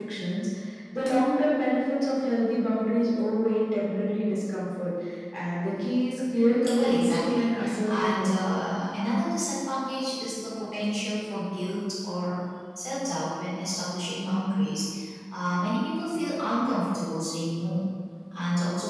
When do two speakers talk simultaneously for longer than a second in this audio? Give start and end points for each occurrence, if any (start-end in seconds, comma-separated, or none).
6.7-8.4